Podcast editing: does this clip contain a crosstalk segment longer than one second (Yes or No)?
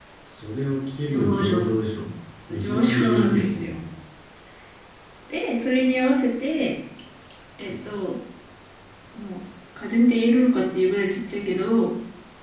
Yes